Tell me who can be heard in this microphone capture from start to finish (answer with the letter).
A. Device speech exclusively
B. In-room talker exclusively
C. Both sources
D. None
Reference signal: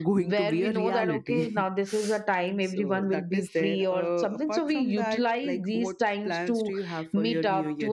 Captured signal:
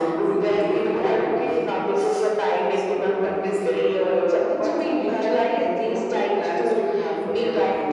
A